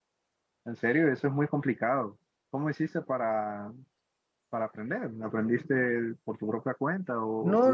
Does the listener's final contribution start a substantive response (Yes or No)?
Yes